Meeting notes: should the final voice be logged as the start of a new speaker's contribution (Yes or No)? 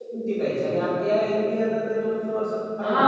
Yes